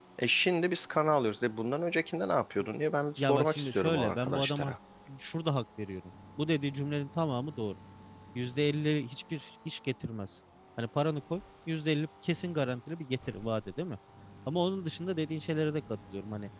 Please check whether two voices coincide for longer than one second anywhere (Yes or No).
Yes